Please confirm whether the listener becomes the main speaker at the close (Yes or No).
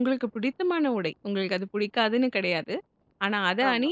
No